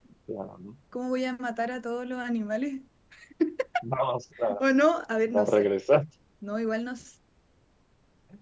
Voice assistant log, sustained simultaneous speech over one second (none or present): none